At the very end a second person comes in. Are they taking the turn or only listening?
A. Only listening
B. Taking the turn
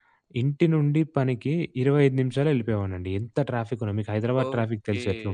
B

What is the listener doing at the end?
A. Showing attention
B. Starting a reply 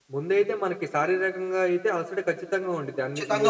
A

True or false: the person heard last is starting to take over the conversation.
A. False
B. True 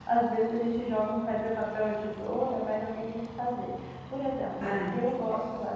A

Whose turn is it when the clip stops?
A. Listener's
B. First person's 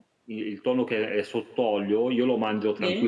B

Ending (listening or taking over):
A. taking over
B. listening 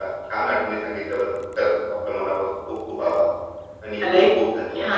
A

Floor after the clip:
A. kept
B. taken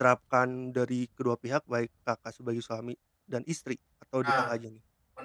B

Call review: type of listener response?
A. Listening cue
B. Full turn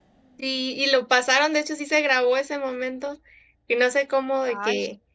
A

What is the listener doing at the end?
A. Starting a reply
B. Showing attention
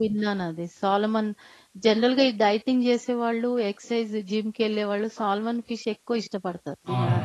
A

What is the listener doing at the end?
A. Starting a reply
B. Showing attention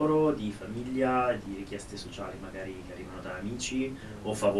B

